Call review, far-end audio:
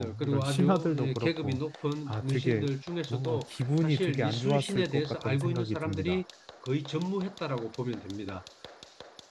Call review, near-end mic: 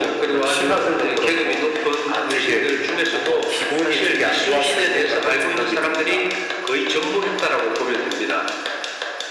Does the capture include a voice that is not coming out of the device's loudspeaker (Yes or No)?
No